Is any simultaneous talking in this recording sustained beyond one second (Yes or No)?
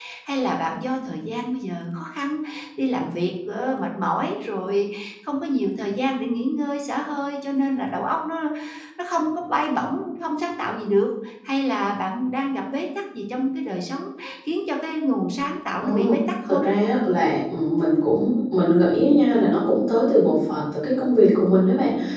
No